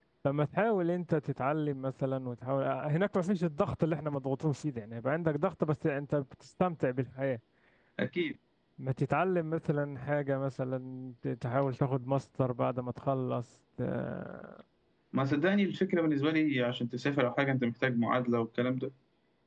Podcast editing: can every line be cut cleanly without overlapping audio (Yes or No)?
Yes